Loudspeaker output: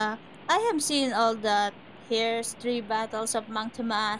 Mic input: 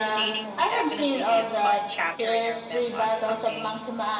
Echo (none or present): present